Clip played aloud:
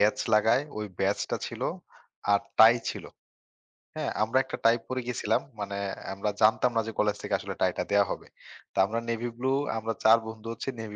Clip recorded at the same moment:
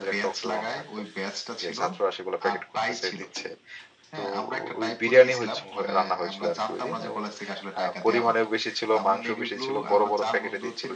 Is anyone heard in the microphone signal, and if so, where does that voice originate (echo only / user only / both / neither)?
both